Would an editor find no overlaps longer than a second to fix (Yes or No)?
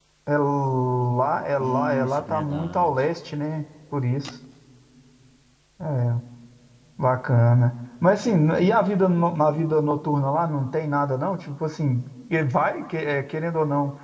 No